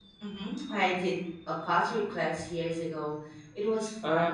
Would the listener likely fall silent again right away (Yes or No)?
No